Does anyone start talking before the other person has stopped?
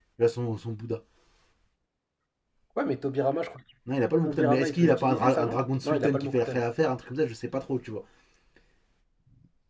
Yes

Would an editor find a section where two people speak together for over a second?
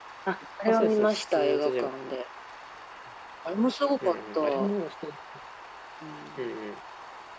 Yes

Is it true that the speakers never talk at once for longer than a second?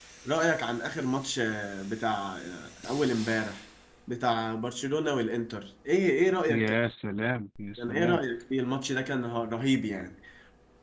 Yes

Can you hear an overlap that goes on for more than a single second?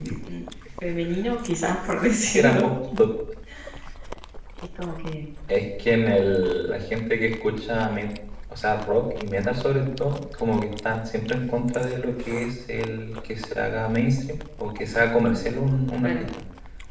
No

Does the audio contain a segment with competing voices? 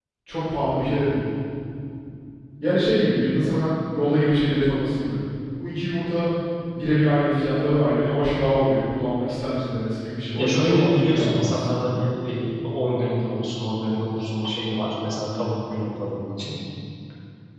Yes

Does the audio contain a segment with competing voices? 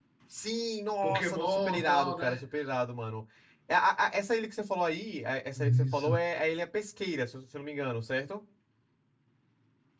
Yes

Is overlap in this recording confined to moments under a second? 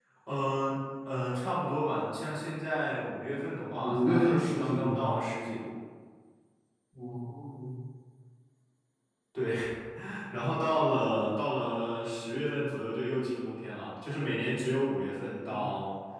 No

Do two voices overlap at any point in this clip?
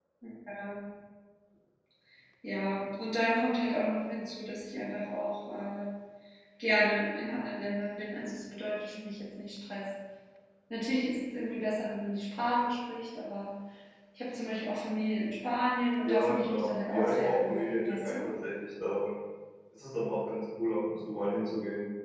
Yes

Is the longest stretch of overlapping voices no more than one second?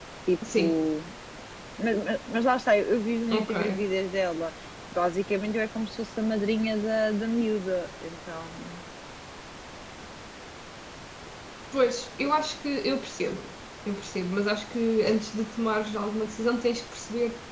Yes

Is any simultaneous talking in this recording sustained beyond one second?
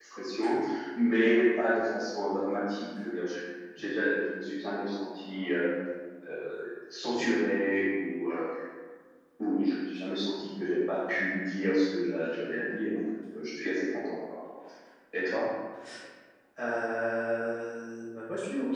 No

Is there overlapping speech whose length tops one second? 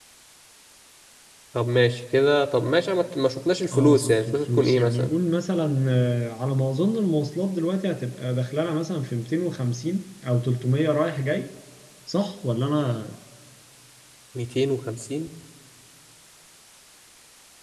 Yes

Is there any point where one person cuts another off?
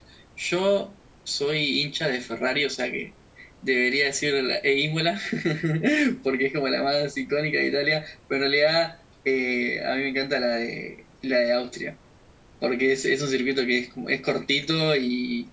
No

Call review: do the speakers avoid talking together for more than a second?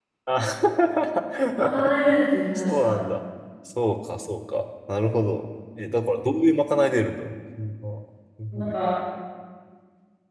Yes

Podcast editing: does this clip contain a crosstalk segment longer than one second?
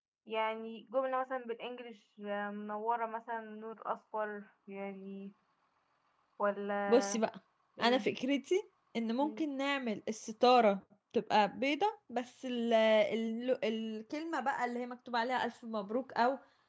No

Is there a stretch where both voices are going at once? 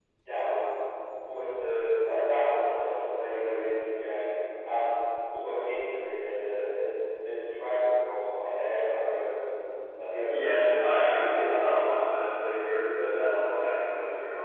Yes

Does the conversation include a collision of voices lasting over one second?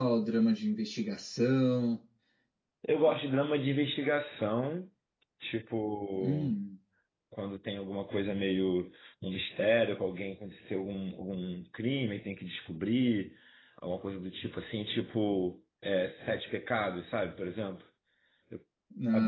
No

